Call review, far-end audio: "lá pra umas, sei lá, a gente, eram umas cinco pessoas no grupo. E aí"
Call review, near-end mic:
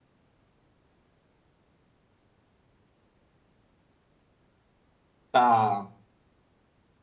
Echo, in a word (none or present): none